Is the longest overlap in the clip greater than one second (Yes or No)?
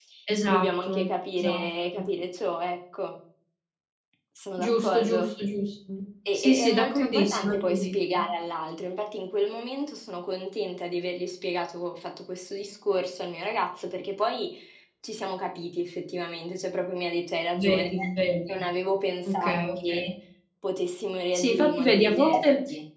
Yes